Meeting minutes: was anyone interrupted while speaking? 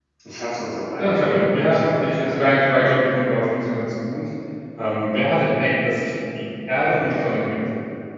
Yes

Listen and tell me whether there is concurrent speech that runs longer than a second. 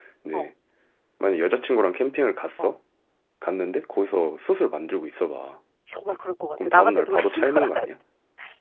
Yes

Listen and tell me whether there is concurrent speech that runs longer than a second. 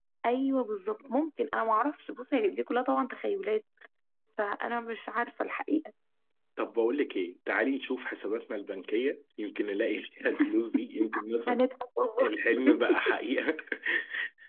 No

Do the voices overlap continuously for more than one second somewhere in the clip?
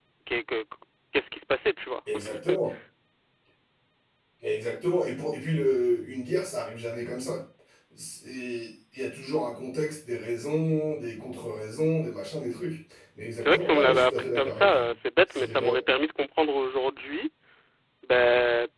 Yes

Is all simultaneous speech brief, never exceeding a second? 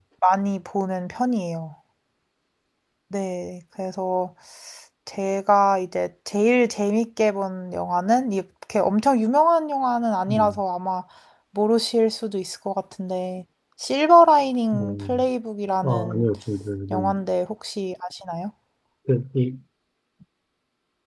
Yes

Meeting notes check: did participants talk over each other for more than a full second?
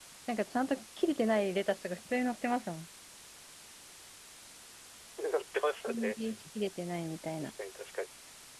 No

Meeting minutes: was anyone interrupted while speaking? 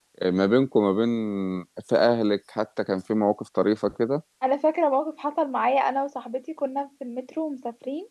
No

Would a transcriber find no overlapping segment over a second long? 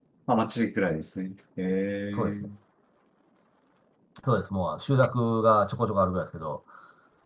Yes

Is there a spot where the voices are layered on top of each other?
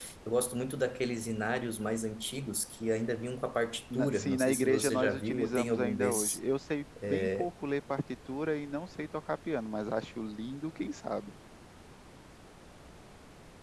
Yes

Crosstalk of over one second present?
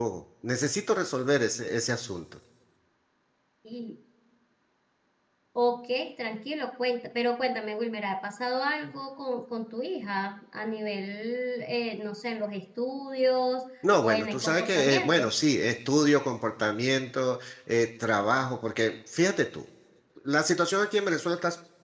Yes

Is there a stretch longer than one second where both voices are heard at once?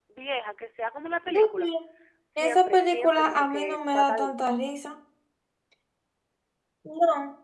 Yes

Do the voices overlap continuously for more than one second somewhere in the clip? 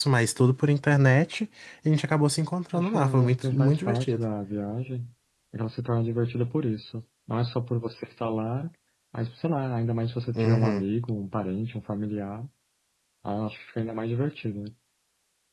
Yes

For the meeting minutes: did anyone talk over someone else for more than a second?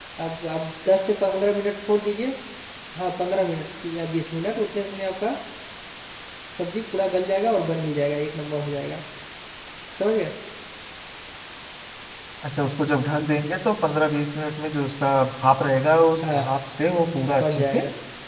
No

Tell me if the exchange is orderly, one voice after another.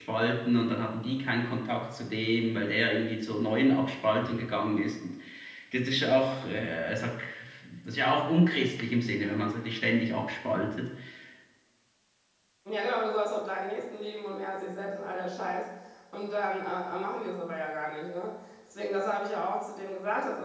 Yes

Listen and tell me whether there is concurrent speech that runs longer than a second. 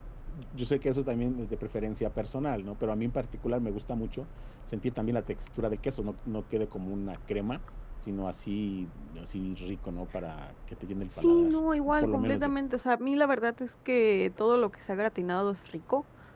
No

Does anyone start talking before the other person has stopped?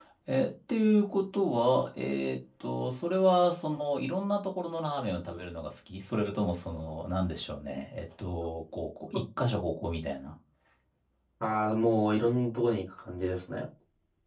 No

